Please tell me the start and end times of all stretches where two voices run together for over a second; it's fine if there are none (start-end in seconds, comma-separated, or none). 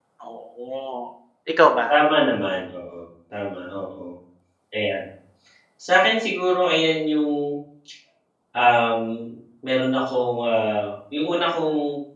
none